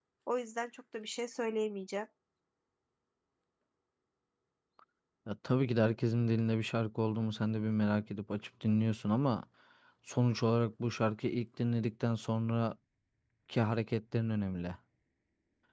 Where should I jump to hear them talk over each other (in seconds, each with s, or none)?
none